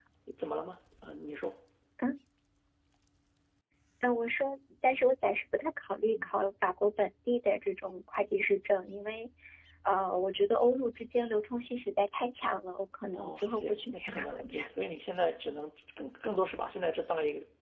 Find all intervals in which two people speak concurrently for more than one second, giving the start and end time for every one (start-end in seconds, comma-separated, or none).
13.1-14.6